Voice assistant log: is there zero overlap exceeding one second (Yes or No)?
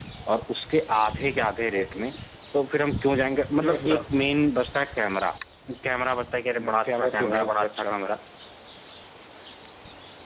No